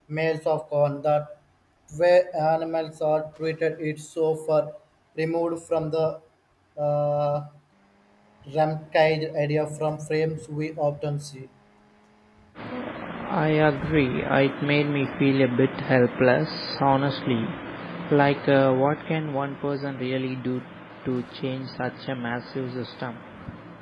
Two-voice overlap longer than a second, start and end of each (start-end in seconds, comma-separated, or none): none